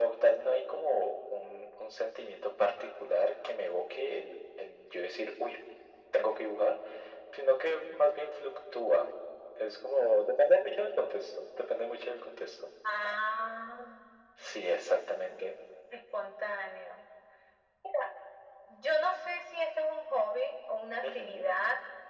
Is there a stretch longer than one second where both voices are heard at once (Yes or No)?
No